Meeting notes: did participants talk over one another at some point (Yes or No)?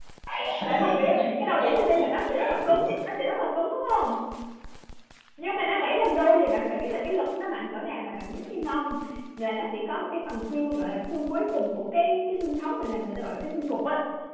Yes